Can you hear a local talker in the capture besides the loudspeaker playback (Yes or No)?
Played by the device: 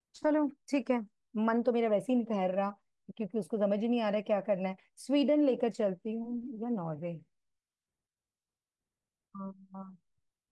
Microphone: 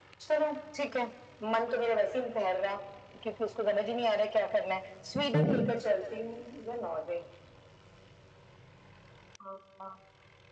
Yes